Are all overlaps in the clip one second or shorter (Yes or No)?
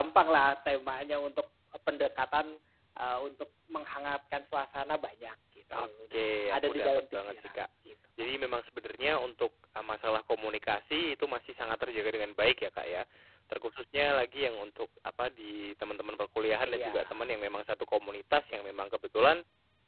No